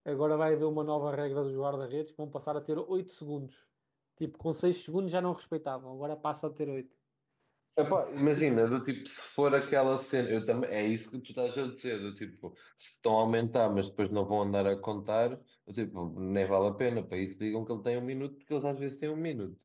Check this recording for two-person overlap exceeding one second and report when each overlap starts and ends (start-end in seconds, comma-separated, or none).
none